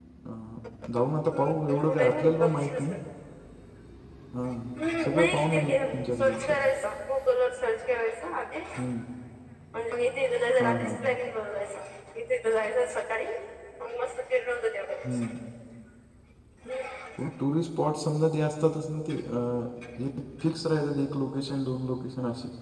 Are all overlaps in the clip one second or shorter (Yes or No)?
No